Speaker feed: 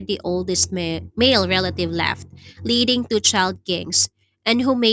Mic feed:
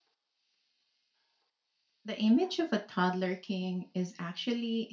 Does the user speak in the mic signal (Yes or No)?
Yes